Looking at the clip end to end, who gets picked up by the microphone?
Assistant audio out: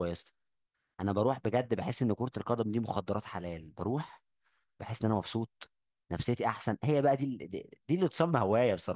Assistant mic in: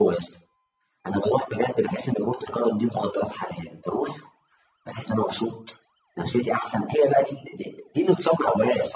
echo only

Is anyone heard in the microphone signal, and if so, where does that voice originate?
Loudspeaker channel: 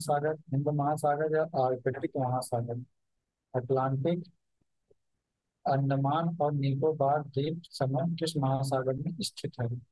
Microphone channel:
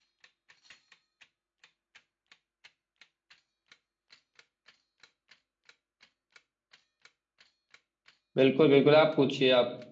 user only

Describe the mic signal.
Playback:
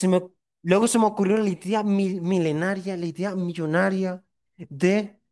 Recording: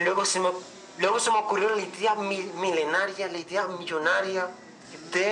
echo only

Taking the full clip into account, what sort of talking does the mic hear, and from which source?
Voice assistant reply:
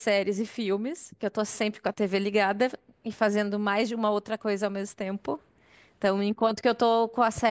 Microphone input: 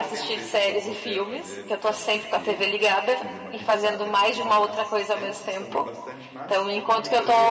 both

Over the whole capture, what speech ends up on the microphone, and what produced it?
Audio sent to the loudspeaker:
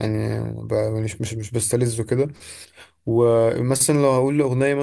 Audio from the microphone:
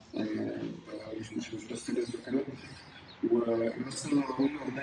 echo only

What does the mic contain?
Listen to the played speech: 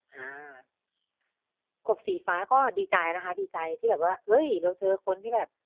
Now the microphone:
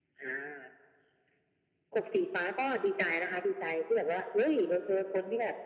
echo only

